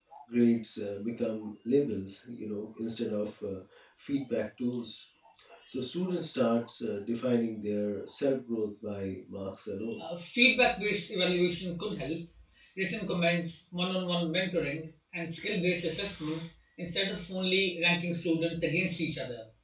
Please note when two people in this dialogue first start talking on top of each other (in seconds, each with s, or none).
none